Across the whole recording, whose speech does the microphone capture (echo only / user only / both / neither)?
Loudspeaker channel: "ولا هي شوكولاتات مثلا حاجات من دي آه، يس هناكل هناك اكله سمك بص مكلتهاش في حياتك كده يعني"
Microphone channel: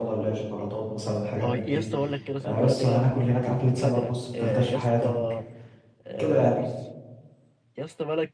both